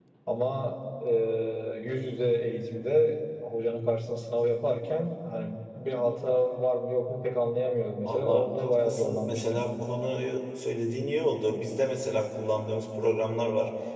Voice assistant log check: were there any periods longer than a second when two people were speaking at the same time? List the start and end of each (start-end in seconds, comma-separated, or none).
8.0-9.7